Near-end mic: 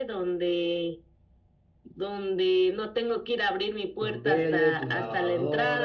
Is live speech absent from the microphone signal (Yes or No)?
No